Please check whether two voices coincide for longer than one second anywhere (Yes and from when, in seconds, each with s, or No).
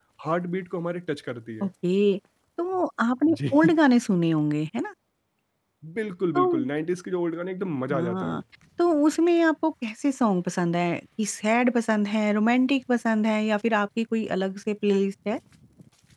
No